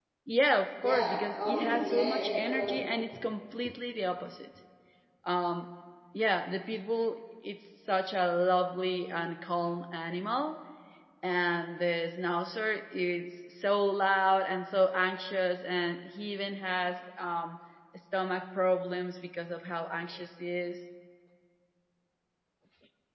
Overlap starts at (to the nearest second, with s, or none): 1 s